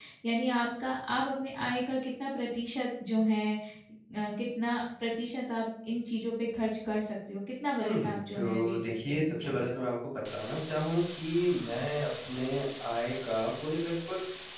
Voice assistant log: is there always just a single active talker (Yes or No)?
No